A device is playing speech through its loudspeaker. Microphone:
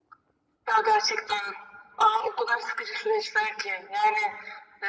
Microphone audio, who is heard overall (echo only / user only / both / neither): echo only